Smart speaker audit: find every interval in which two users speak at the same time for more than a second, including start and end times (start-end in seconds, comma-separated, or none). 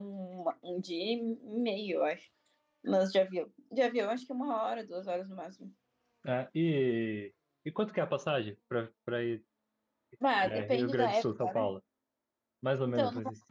10.4-11.7